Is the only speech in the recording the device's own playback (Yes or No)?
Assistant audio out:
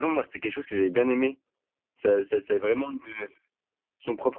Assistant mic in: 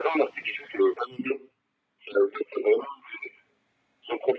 Yes